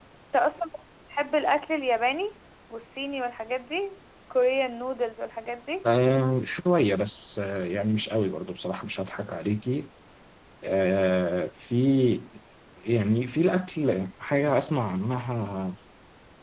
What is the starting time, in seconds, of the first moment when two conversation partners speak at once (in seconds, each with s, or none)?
none